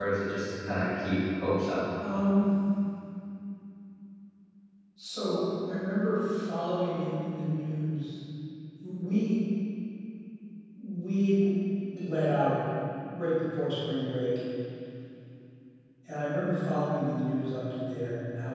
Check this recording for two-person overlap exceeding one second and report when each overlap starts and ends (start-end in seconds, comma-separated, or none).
none